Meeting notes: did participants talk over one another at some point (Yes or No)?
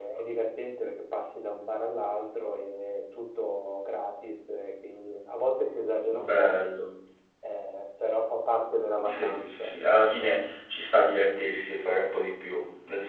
Yes